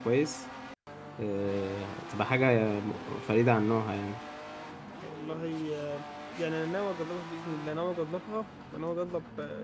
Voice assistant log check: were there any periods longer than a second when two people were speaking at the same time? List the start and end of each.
none

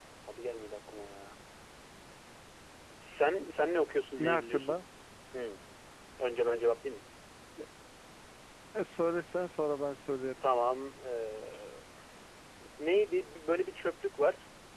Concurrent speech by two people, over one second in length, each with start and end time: none

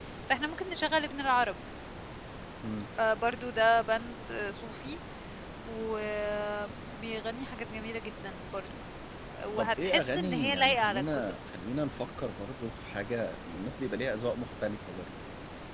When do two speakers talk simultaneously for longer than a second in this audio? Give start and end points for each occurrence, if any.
9.6-11.4

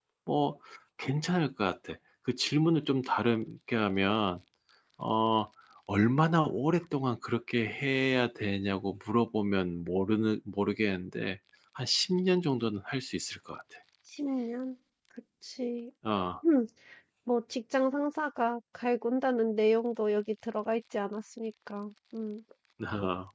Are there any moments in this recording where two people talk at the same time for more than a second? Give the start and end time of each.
none

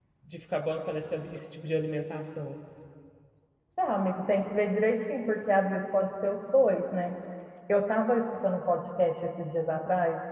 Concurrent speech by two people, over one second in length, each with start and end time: none

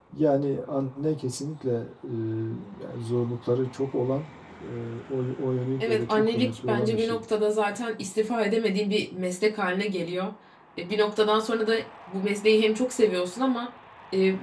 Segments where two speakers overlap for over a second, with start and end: 5.8-7.2

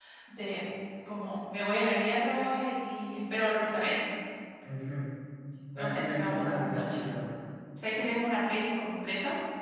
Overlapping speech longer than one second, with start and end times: 5.8-7.0

